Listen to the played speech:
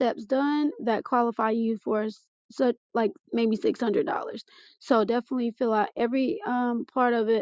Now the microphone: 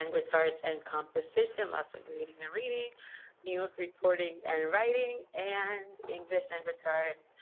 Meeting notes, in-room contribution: present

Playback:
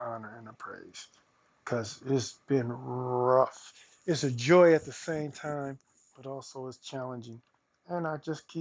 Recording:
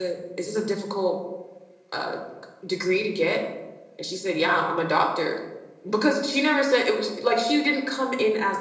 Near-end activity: present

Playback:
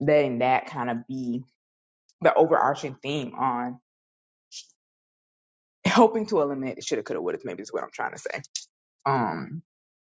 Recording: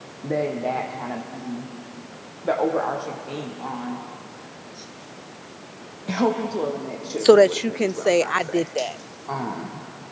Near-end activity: present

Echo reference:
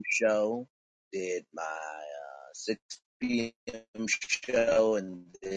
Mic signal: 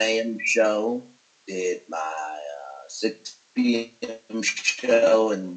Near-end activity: none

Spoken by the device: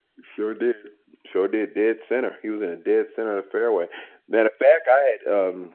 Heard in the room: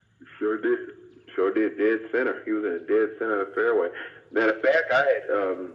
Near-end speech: none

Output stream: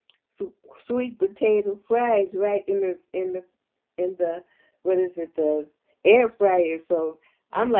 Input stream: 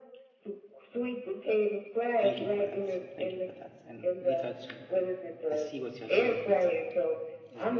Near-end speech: present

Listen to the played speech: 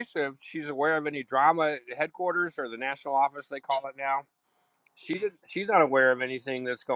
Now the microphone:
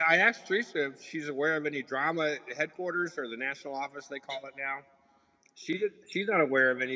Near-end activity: none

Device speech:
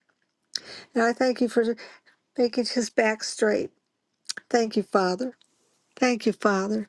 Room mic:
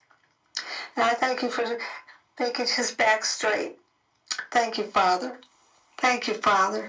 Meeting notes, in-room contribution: none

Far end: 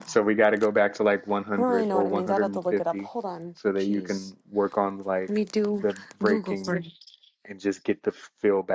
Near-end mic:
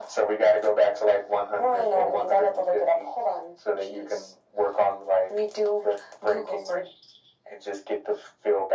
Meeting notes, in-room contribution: none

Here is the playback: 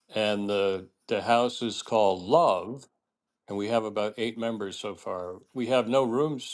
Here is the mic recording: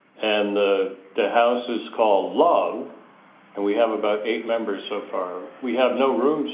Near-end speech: none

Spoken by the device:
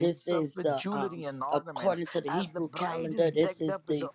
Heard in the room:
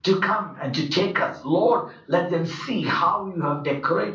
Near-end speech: present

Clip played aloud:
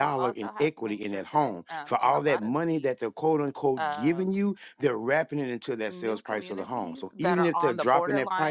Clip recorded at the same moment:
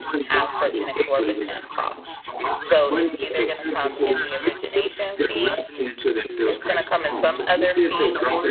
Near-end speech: present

